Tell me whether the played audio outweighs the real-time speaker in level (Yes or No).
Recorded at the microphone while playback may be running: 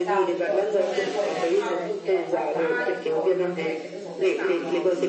Yes